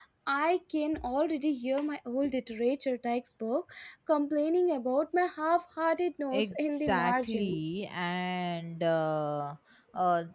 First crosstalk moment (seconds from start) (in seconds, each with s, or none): 6.3 s